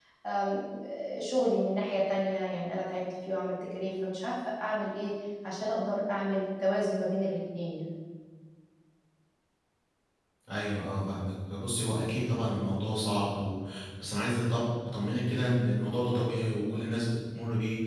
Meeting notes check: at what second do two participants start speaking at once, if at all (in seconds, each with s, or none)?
none